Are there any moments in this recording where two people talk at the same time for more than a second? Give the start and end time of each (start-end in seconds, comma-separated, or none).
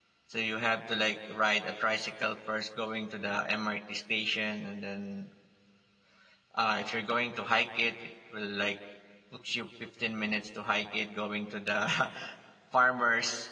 none